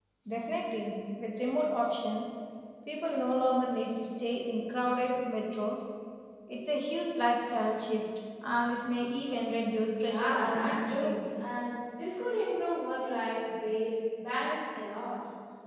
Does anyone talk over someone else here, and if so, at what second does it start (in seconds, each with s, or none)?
10.0 s